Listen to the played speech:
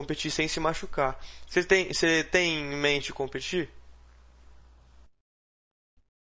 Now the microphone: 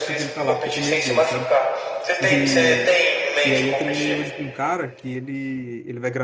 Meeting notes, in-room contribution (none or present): present